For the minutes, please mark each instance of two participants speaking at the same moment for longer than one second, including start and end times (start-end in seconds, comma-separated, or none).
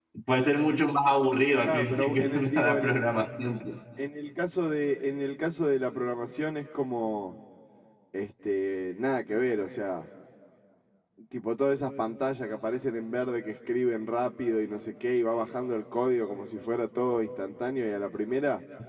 1.6-3.0